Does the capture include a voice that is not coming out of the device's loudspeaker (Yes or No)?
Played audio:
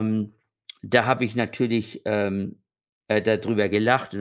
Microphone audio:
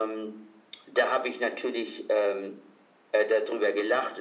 No